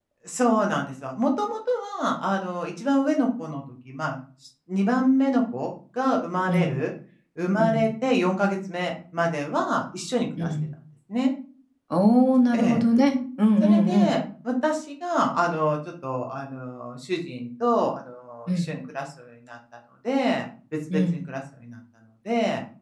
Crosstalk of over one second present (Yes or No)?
No